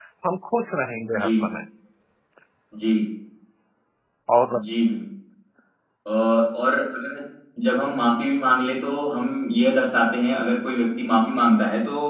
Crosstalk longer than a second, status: none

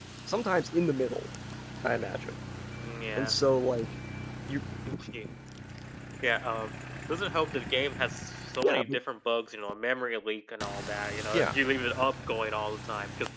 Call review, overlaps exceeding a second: none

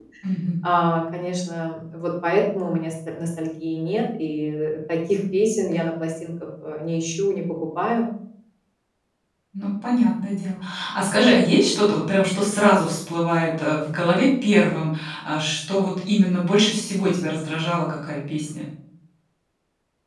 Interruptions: none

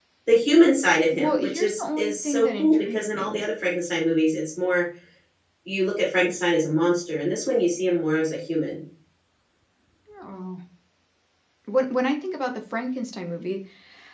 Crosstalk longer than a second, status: present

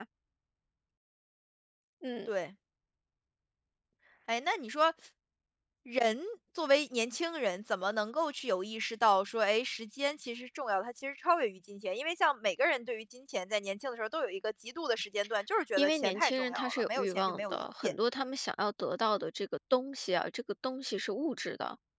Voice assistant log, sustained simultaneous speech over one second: present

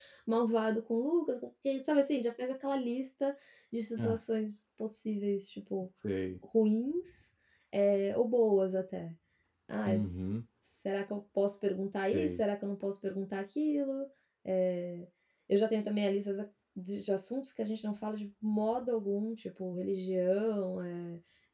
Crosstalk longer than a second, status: none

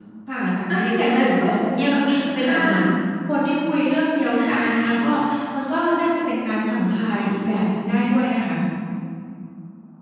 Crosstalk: present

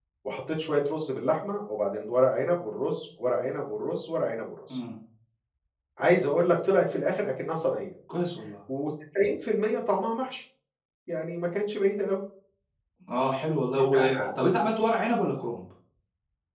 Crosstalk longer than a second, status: none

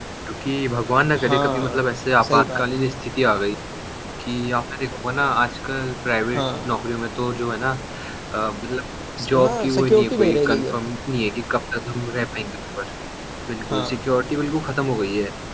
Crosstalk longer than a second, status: present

